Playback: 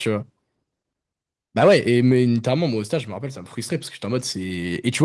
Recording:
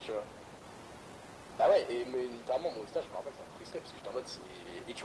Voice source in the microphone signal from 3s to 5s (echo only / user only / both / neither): echo only